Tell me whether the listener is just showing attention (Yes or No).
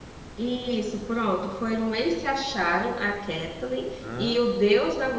Yes